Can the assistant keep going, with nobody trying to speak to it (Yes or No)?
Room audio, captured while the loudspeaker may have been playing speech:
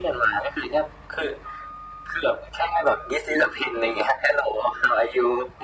Yes